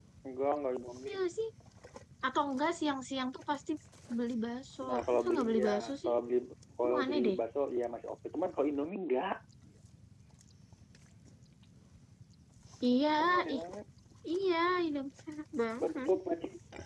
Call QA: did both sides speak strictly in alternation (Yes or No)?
No